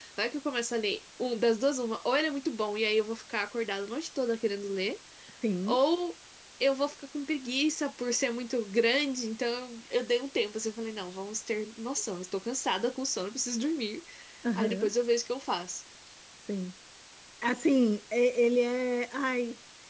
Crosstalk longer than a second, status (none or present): none